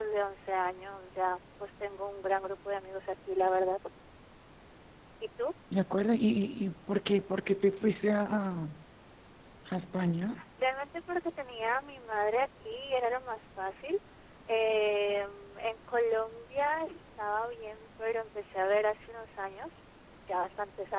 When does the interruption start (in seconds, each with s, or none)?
none